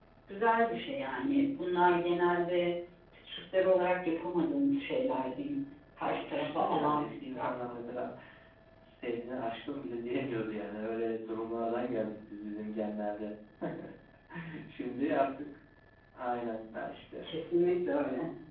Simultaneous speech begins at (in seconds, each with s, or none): 6.0 s